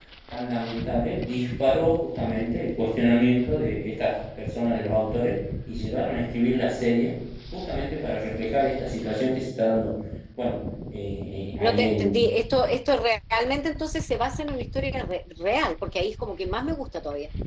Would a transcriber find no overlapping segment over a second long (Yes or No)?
Yes